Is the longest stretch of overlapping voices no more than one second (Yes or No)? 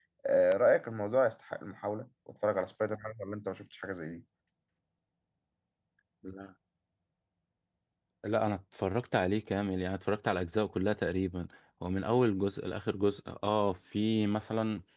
Yes